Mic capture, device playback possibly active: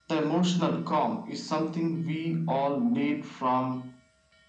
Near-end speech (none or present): none